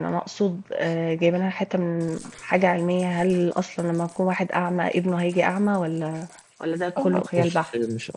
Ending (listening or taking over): taking over